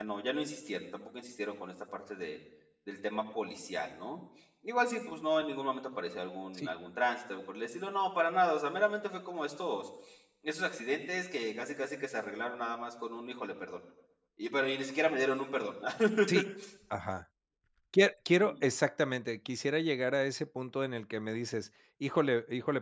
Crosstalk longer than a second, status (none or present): none